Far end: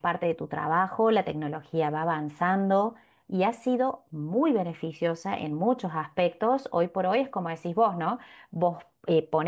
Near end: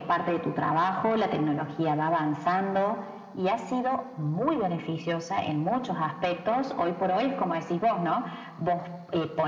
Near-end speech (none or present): none